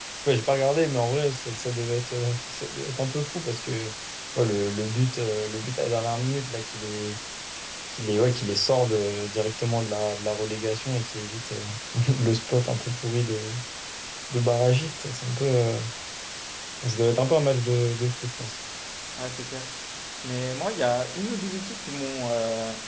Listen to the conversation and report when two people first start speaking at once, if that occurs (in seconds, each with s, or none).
none